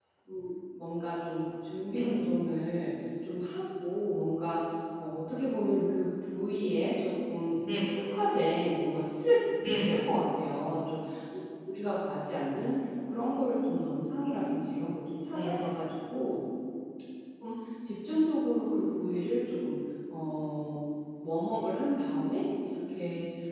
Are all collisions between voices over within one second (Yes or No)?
Yes